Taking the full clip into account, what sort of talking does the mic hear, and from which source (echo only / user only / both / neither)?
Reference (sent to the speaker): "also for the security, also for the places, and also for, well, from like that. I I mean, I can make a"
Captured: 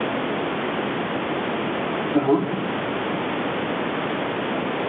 user only